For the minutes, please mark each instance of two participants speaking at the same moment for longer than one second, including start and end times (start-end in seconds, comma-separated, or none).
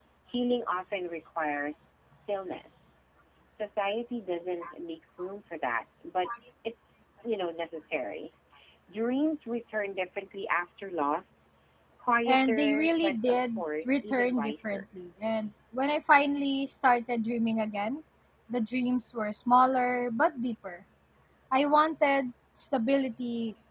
12.3-14.8